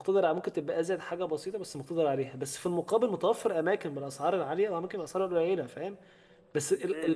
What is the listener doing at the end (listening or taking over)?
taking over